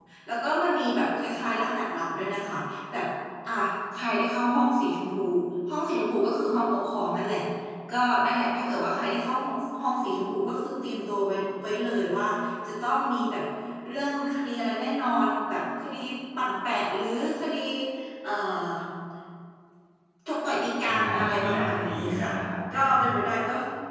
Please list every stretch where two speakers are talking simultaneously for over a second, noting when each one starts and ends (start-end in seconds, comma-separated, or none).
20.9-22.3